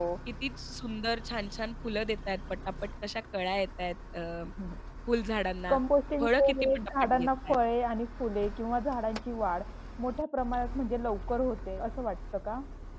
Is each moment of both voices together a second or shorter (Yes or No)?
No